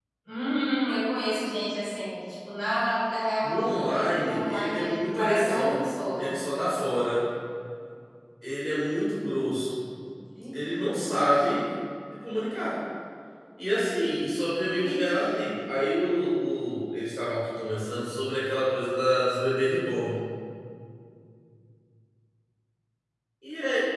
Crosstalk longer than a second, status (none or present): present